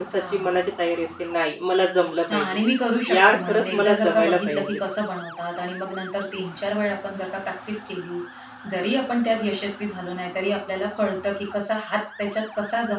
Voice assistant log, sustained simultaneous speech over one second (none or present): present